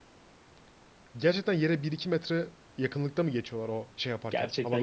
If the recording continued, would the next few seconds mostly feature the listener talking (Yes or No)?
Yes